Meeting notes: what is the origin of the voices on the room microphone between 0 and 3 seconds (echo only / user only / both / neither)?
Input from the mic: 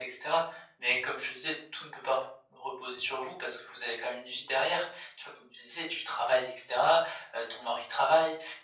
echo only